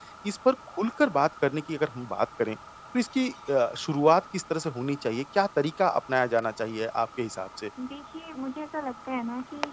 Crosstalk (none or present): none